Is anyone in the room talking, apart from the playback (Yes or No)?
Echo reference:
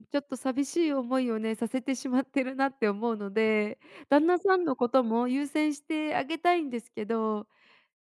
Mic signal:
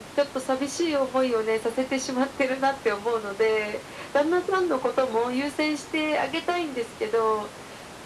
No